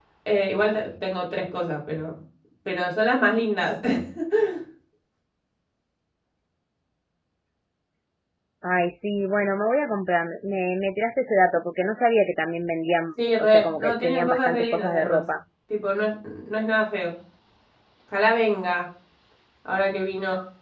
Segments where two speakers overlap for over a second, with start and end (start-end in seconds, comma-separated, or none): 13.4-15.2